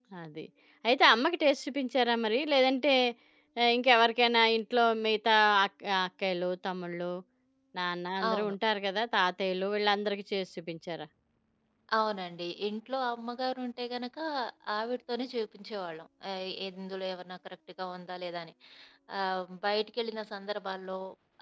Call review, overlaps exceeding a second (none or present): none